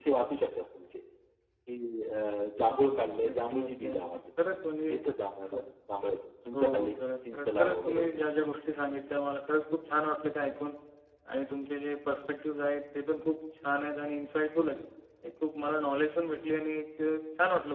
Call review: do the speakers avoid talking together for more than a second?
No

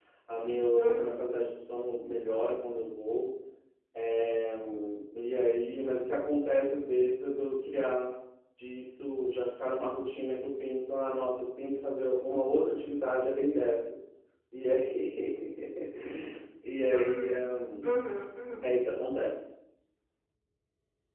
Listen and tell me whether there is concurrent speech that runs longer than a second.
No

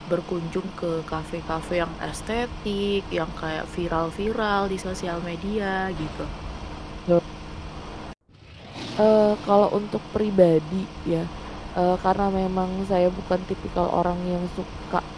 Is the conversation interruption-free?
Yes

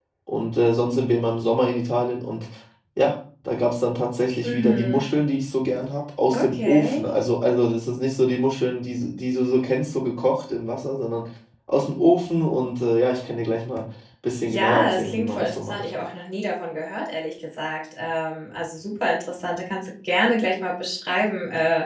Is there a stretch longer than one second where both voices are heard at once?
Yes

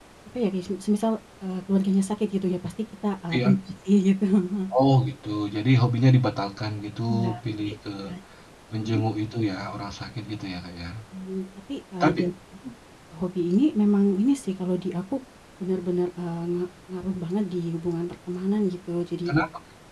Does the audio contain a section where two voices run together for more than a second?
No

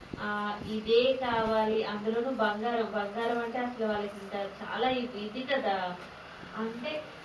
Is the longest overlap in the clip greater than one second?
No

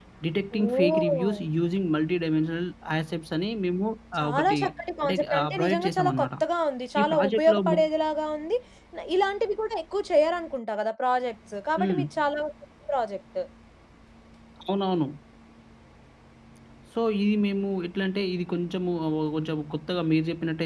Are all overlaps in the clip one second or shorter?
No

